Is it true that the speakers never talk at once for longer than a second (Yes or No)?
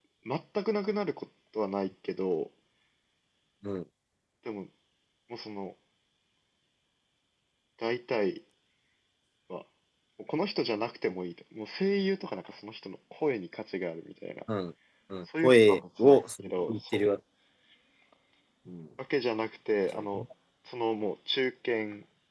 No